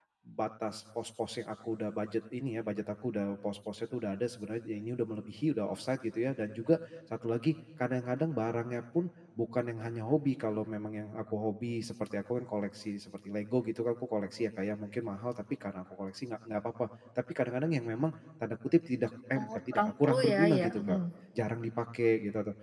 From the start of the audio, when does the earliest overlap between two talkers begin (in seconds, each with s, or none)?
19.4 s